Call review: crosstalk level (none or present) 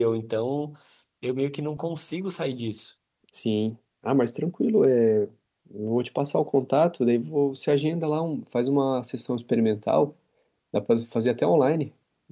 none